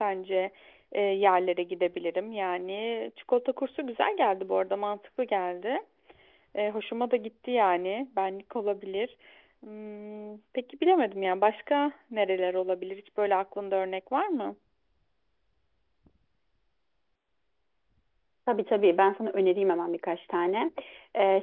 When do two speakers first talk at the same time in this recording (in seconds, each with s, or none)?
none